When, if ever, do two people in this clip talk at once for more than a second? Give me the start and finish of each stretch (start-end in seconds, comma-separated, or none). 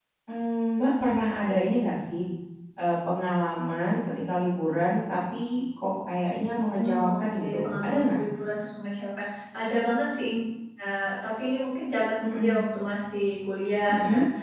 6.7-8.2